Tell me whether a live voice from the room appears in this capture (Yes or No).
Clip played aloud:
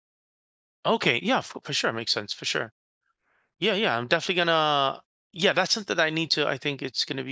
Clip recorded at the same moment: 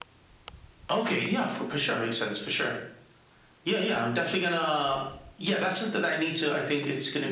No